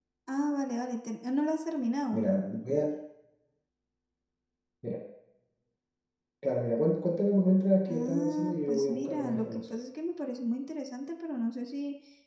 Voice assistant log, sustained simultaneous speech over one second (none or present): present